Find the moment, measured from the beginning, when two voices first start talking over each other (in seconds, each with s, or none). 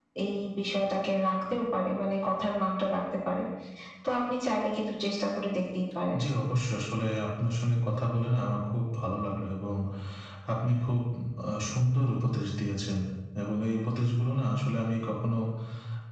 none